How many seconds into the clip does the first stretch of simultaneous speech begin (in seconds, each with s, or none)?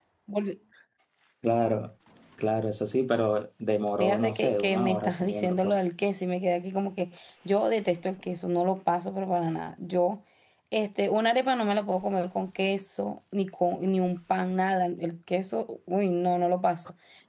4.0 s